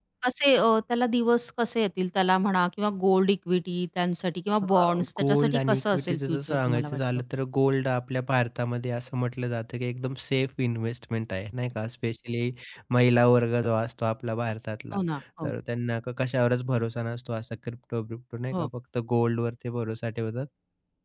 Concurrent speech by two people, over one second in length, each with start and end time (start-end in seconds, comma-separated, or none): 4.6-7.0